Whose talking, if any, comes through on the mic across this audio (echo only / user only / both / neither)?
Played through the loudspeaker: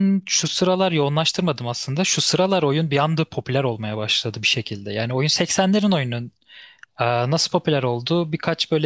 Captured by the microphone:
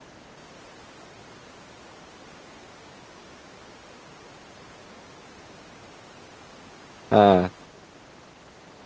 user only